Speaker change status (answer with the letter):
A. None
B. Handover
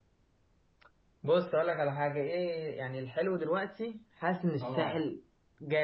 A